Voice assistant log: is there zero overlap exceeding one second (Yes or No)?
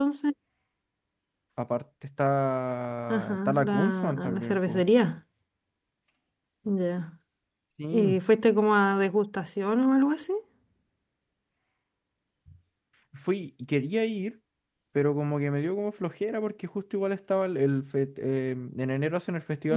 No